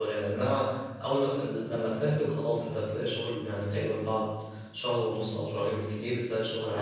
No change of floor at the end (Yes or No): No